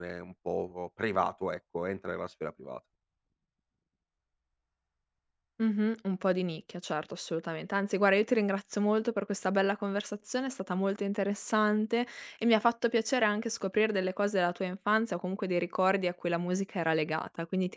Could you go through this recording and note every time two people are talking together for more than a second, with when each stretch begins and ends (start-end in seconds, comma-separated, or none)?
none